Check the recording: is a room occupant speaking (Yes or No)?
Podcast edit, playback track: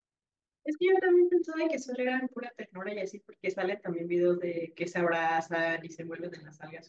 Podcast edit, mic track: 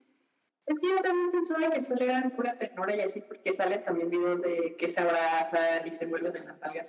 No